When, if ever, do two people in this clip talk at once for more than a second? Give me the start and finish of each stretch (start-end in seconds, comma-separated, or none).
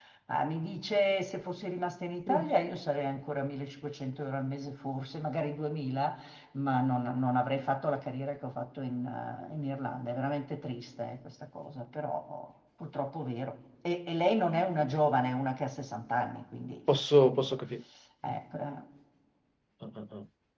none